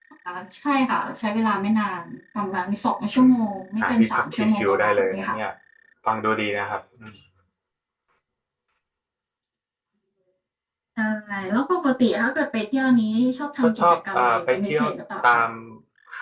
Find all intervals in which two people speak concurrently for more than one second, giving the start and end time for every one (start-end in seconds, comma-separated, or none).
3.8-5.4, 13.6-14.8